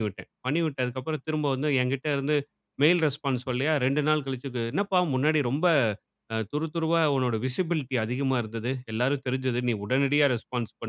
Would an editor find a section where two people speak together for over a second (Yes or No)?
No